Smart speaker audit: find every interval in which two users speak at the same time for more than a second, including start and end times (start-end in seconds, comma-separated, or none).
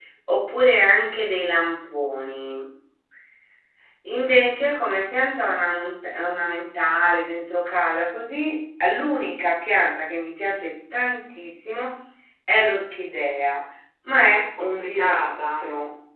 14.2-15.6